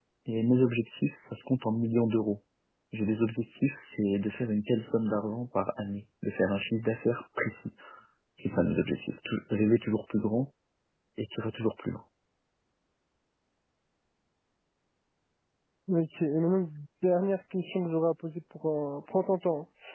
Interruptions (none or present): none